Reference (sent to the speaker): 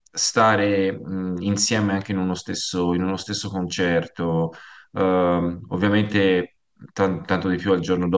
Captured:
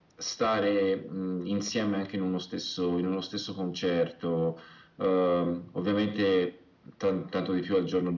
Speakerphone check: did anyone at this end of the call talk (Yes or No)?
No